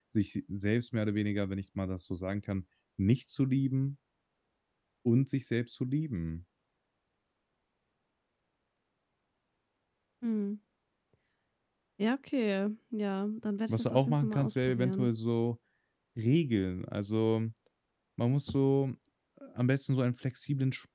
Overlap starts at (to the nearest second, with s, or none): 14 s